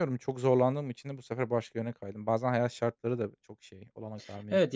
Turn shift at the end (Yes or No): Yes